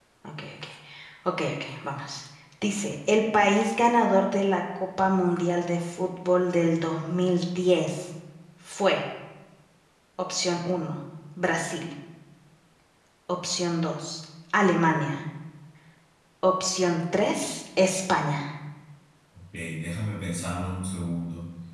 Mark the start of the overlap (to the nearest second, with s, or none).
none